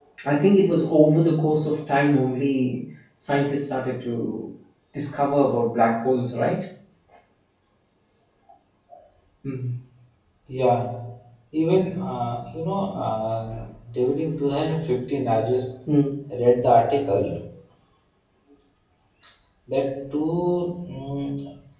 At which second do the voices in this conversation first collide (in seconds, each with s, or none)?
none